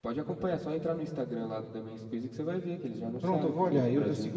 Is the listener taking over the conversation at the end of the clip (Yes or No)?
Yes